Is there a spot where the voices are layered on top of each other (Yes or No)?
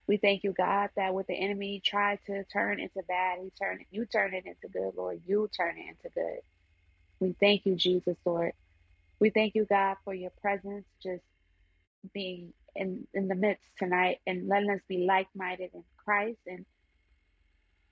No